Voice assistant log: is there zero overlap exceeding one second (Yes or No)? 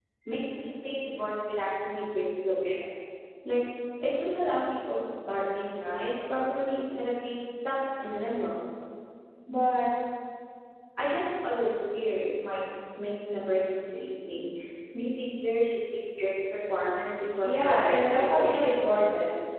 No